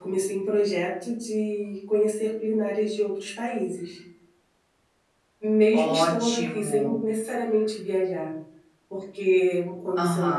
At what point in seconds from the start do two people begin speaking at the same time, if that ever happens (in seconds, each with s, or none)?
5.7 s